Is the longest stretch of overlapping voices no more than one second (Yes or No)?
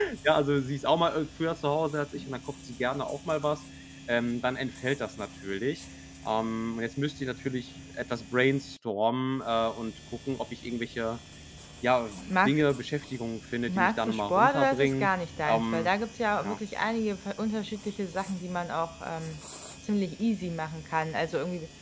No